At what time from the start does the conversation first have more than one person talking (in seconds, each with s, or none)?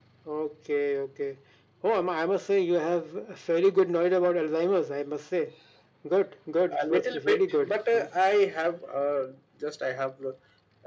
6.8 s